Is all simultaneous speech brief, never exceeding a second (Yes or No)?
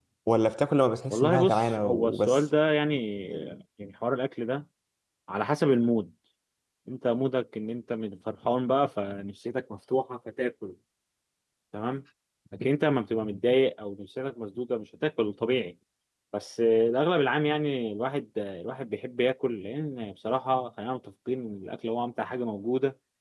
No